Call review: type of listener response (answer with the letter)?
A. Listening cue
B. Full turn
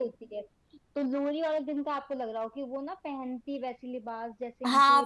B